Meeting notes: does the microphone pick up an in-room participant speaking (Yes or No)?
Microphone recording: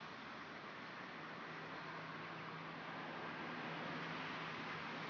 No